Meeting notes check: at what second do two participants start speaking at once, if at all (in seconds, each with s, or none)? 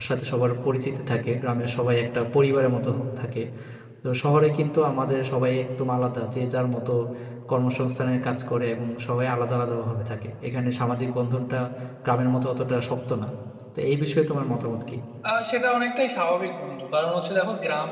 none